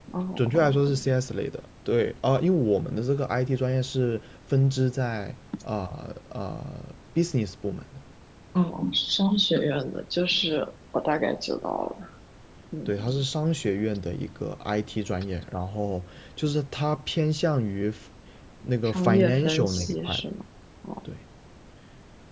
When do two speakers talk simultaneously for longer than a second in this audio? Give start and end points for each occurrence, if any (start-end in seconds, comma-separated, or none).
18.8-20.2